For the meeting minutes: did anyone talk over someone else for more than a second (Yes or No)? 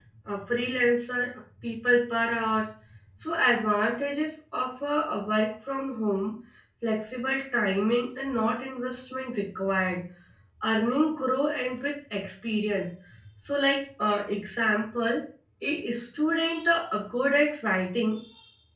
No